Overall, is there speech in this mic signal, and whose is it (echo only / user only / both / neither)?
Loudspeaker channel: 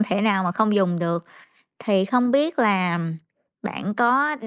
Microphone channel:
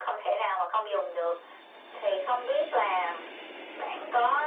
echo only